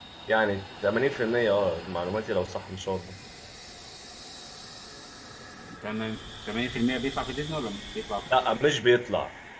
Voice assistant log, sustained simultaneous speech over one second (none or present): none